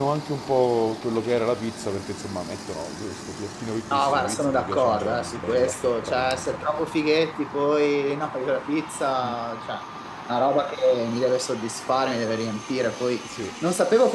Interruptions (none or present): present